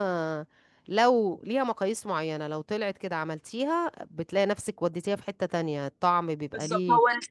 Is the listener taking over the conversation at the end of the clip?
Yes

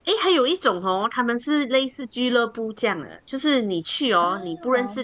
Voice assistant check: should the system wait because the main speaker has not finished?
Yes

